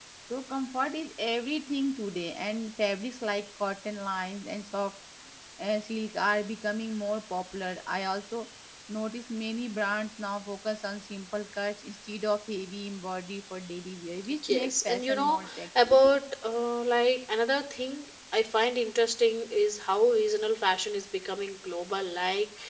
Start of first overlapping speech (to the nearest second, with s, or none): 14 s